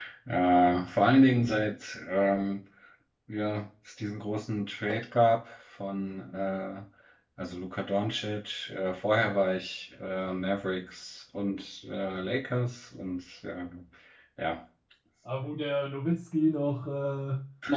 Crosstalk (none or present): none